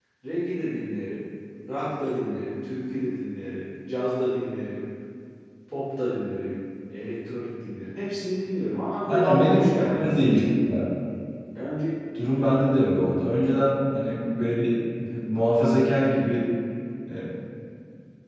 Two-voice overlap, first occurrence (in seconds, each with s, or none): 9.1 s